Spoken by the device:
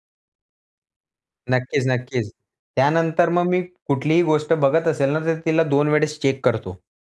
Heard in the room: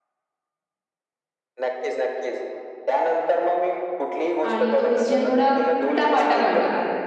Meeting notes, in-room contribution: present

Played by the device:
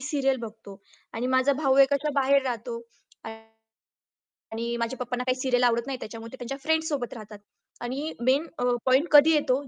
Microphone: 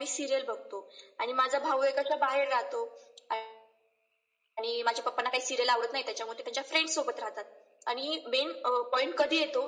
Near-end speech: none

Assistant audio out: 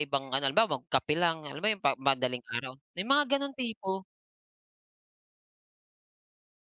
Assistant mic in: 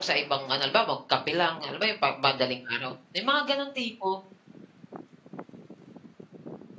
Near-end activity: none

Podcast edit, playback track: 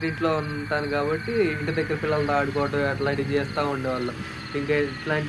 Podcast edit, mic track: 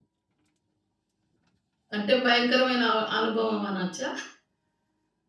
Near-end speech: present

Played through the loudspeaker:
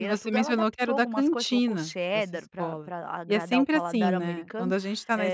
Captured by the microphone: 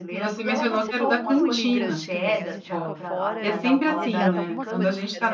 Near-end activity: present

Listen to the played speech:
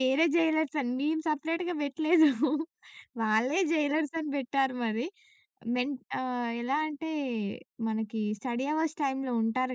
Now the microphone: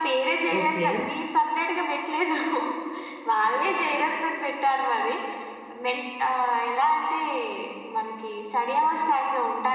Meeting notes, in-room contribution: present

